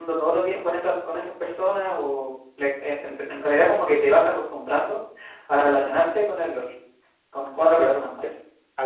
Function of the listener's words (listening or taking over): taking over